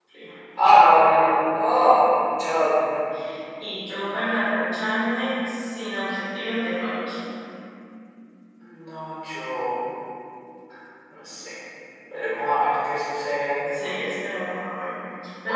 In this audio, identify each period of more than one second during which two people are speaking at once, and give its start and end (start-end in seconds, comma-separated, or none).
none